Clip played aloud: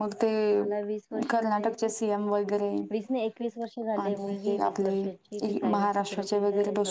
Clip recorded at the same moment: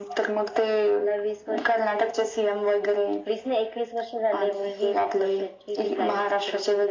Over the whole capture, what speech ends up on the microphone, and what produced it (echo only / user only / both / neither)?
echo only